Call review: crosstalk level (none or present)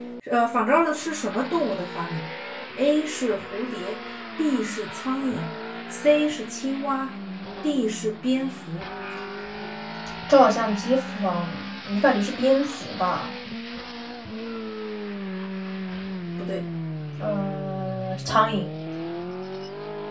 none